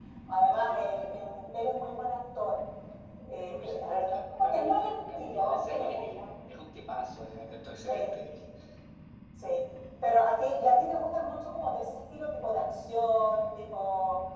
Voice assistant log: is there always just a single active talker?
No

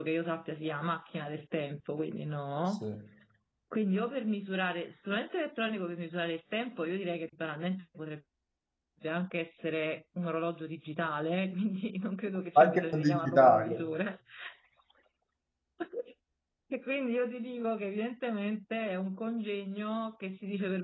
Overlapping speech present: Yes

